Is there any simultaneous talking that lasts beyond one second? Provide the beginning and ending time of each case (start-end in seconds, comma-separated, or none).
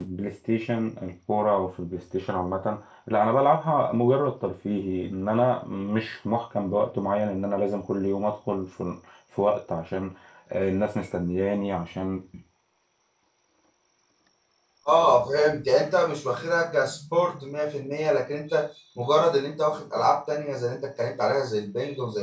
none